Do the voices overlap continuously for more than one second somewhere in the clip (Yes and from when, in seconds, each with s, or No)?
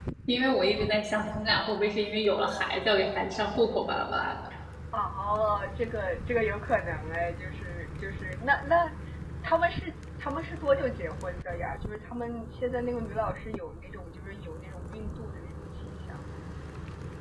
No